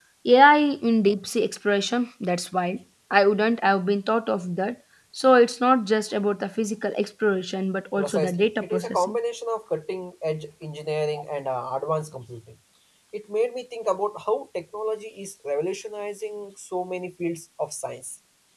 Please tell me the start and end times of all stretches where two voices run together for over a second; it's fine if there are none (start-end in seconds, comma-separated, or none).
8.0-9.2